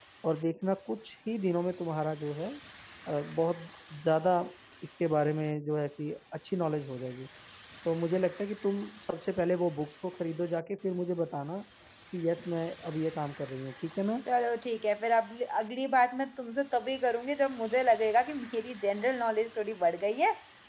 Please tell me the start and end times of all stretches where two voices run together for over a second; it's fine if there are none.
none

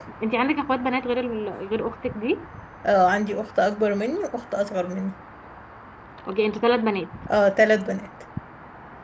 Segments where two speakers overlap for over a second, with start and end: none

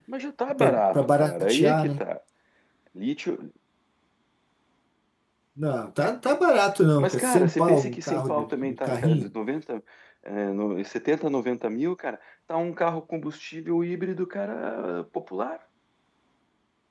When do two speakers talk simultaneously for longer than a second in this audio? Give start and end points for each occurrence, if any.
0.6-2.0, 7.0-9.3

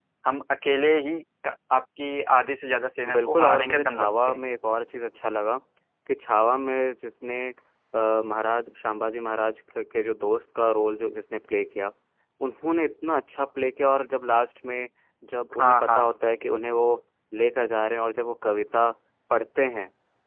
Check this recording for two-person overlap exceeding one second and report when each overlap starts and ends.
3.1-4.4

